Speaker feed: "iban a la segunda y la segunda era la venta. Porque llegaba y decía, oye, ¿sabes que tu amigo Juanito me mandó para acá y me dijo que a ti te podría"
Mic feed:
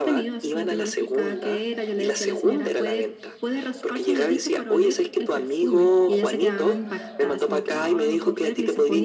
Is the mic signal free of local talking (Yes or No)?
No